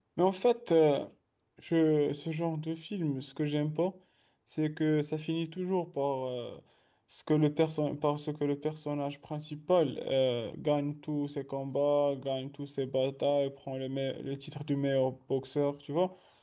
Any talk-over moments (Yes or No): No